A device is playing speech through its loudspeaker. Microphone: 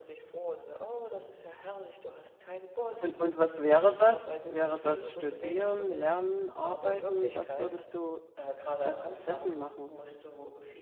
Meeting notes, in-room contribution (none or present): present